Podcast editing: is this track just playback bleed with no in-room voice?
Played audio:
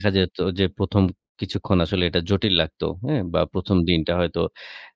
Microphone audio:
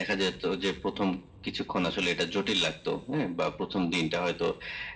Yes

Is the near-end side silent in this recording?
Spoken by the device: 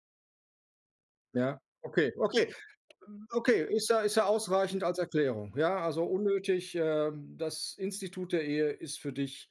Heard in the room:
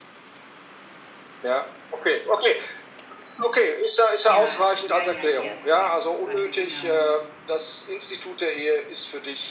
No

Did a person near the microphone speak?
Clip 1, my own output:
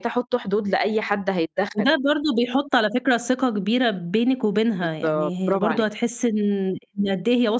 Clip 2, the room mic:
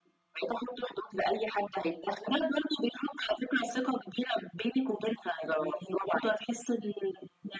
No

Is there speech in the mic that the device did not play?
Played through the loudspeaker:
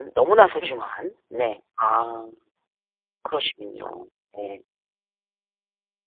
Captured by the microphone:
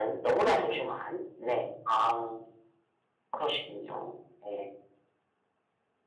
No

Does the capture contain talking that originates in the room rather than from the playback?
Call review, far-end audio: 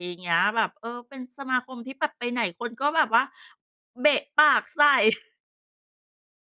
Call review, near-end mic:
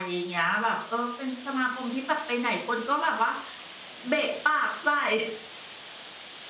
No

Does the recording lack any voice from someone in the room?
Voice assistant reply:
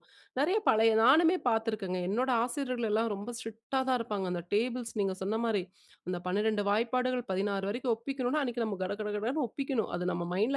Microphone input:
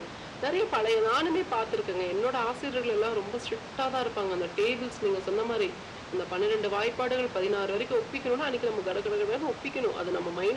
Yes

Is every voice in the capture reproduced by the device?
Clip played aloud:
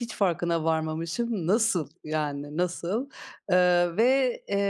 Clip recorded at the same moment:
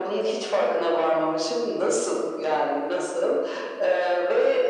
Yes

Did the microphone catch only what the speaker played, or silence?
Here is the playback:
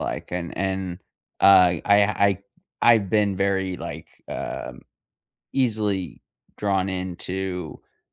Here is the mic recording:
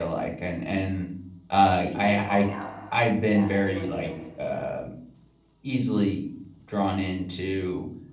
No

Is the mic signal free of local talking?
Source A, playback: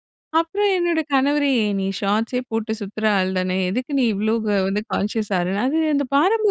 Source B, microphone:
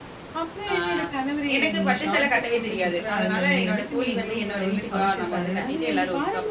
No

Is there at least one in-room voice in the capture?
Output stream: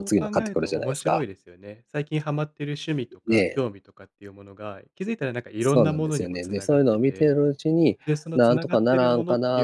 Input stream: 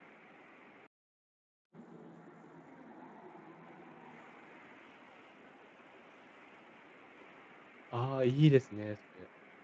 Yes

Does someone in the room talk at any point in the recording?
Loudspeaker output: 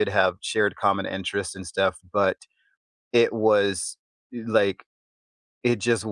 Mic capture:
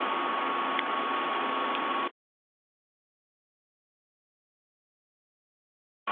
No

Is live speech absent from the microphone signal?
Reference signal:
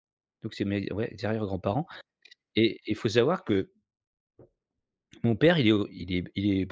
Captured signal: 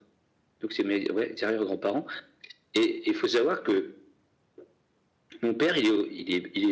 Yes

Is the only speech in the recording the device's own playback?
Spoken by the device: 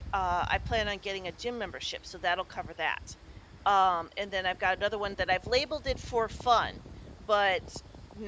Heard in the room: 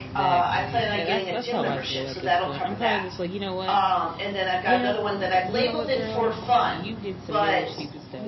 No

